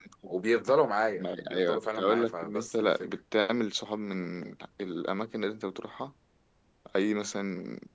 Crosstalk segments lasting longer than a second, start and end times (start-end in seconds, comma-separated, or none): 1.1-3.1